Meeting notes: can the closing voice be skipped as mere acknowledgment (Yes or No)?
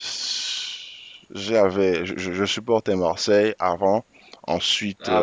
No